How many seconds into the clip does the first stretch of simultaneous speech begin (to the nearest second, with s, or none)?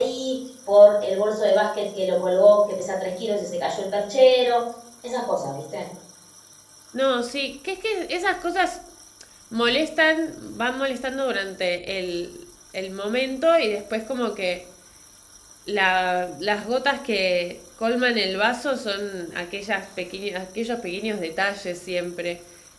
none